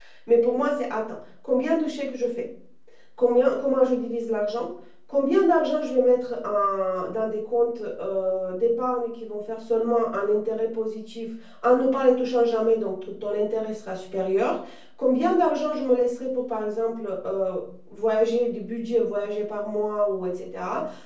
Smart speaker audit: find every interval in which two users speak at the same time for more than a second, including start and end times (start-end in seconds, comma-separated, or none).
none